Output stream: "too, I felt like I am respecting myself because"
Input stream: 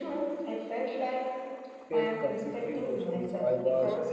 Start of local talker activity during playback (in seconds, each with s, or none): 1.9 s